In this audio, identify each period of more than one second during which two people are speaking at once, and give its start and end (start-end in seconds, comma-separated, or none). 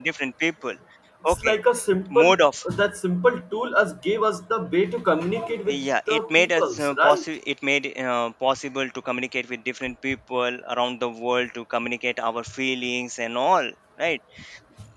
5.7-7.2